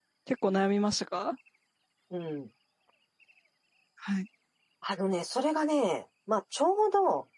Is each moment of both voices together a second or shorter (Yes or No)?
Yes